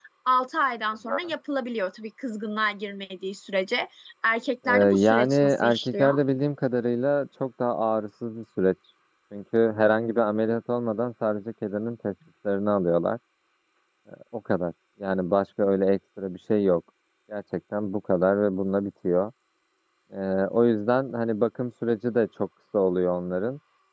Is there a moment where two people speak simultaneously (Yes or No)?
Yes